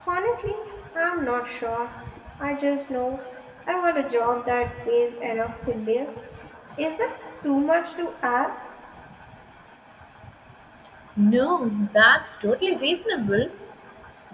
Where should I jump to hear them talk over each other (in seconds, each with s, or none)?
none